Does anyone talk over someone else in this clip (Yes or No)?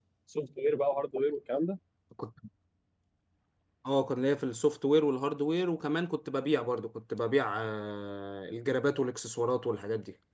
No